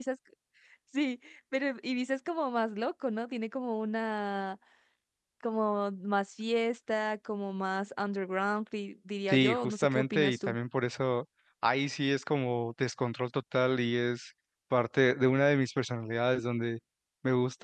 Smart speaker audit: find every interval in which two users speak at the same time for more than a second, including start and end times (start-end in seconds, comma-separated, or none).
9.3-10.6